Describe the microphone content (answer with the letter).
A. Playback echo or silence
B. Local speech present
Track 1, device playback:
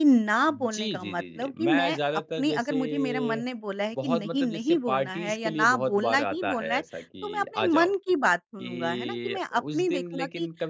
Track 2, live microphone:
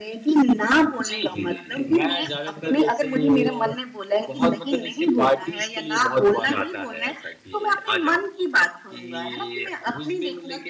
A